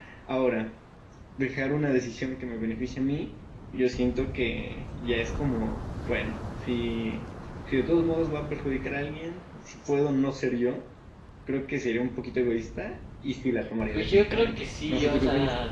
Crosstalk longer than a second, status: present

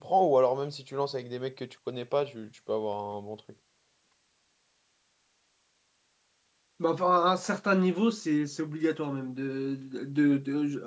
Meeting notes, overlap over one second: none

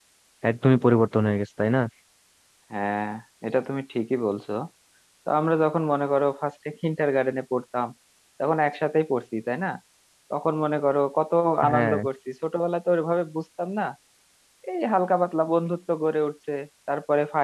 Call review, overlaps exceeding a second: none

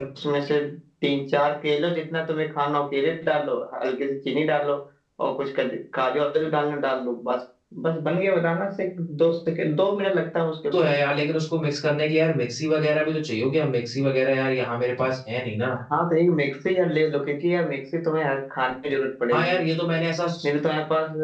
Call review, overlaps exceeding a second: none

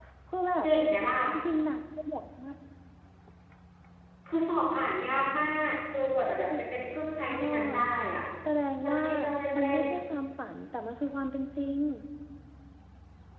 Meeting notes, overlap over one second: none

